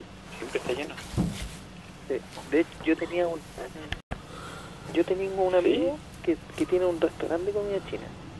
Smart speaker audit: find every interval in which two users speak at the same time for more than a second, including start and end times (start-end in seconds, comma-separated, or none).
none